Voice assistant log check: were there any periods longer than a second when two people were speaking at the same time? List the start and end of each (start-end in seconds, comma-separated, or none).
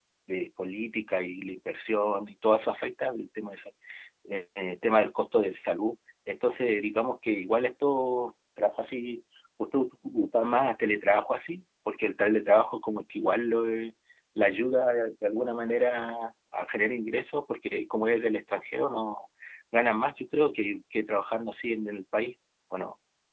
none